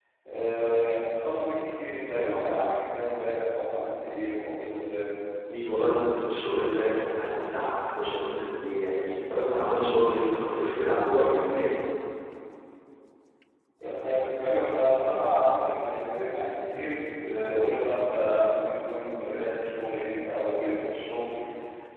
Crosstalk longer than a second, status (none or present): none